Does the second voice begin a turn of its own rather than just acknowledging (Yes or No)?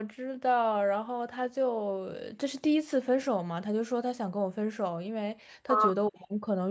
No